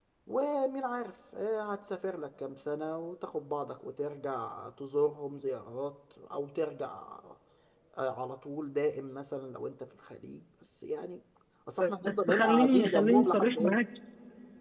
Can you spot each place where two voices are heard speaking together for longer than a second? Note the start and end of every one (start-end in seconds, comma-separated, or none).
12.1-13.8